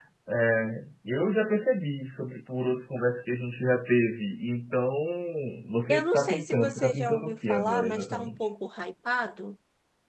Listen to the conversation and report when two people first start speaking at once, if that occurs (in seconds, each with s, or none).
5.9 s